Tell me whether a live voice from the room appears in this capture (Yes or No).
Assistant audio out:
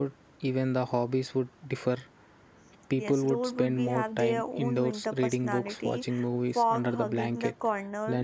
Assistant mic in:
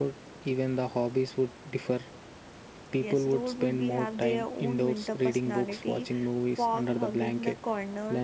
No